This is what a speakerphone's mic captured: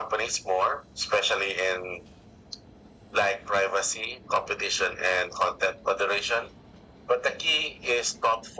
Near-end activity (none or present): none